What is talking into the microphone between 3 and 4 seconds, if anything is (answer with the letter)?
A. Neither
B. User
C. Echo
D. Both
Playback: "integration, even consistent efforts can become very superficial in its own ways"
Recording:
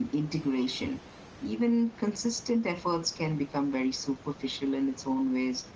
C